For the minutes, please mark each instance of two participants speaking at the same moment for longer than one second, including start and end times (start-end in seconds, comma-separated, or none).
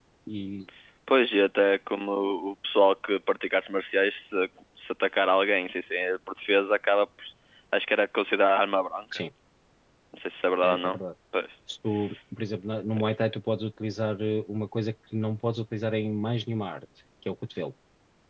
none